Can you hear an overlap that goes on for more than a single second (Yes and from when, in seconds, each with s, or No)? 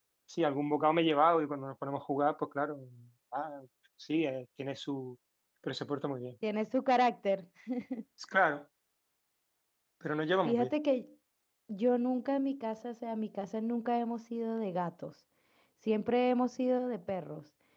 No